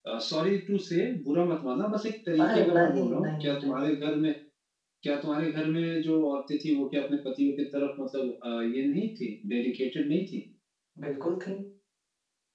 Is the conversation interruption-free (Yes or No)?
No